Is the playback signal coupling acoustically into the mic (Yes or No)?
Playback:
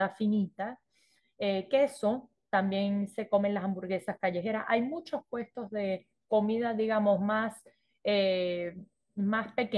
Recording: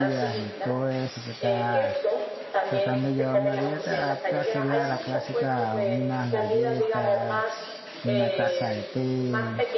Yes